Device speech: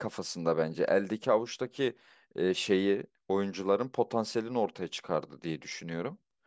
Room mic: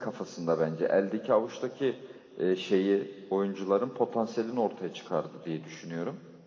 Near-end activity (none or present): none